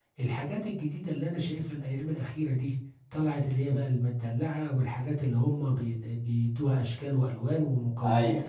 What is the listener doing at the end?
listening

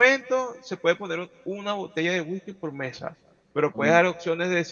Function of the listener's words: listening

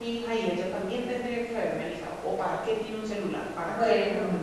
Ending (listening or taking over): taking over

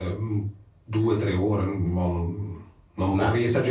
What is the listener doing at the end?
listening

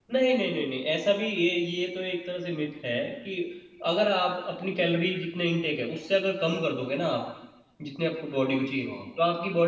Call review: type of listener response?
listening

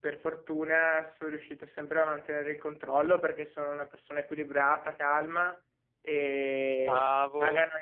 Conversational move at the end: listening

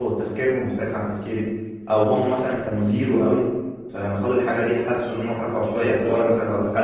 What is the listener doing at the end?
listening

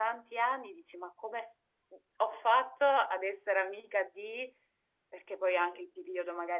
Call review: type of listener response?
listening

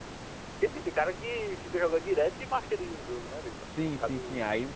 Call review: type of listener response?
taking over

